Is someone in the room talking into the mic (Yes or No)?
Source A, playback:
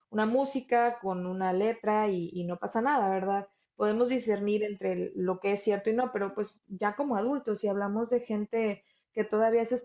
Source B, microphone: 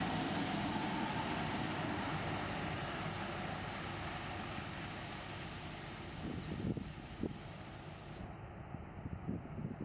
No